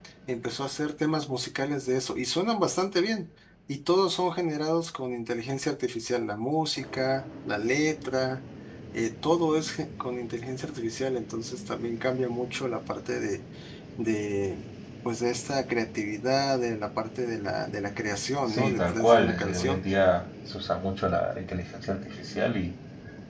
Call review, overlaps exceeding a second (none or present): present